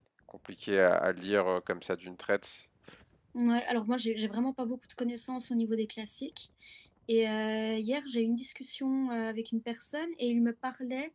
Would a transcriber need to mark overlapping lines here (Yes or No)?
No